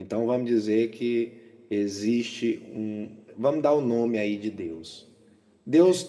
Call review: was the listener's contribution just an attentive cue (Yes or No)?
Yes